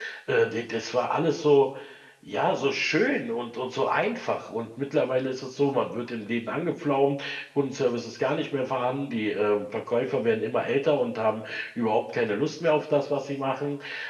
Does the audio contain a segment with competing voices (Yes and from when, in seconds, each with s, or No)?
No